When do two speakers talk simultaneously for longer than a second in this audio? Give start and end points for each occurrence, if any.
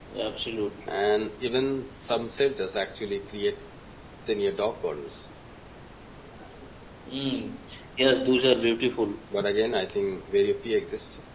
none

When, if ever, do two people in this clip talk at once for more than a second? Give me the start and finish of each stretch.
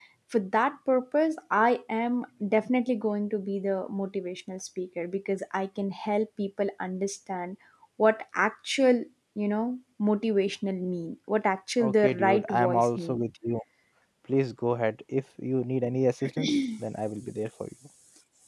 11.8-13.2

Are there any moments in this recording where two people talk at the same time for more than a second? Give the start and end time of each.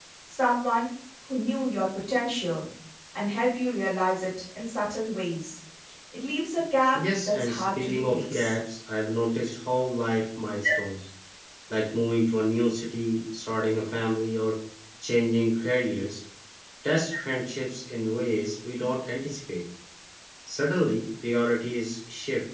6.9-8.5

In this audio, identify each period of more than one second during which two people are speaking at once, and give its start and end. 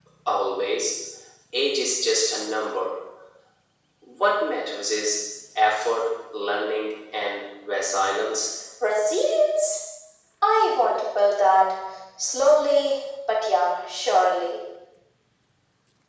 none

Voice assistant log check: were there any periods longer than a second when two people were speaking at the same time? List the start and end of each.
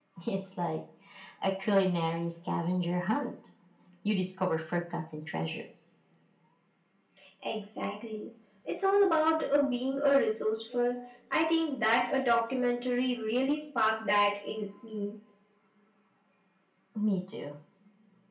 none

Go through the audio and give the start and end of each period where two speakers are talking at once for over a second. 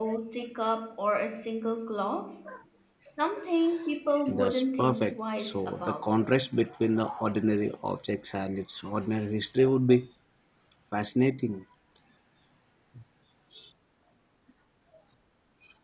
4.3-6.0

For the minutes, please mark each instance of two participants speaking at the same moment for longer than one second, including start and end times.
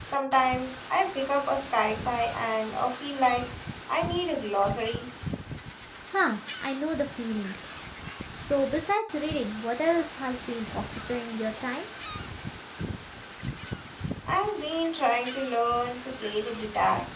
none

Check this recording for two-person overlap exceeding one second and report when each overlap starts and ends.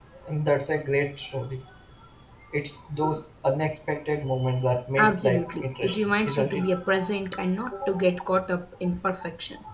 5.0-6.6

